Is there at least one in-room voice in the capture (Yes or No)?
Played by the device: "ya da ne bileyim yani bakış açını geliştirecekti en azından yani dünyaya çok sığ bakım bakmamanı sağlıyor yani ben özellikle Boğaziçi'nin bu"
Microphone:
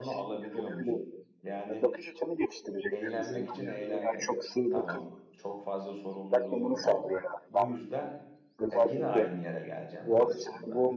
Yes